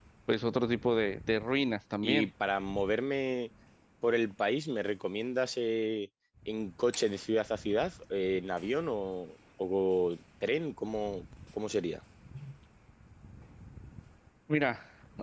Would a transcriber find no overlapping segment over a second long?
Yes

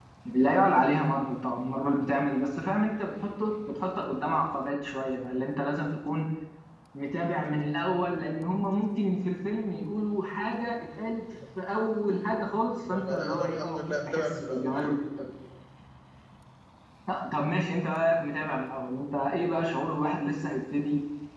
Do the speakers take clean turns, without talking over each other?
No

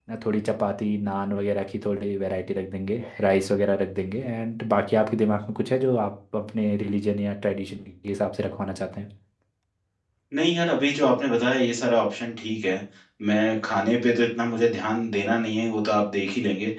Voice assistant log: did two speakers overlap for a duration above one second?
No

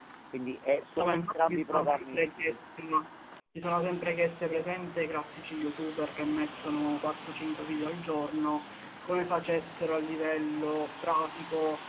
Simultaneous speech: Yes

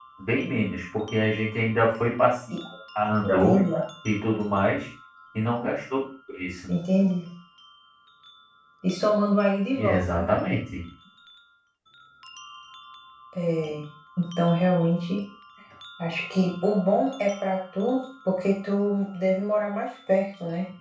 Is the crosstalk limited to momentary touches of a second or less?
Yes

